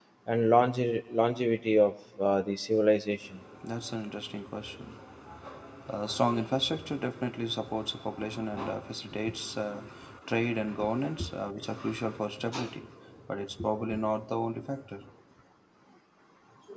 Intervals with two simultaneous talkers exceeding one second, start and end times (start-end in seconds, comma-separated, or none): none